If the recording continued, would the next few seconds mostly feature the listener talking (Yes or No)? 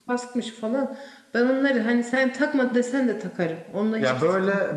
Yes